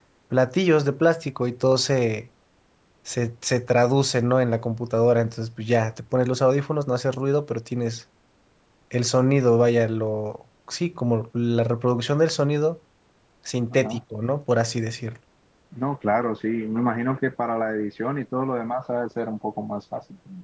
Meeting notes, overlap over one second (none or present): none